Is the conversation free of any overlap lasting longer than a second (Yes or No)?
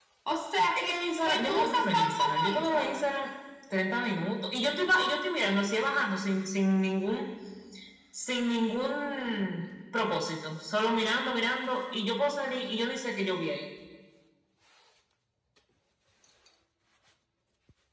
No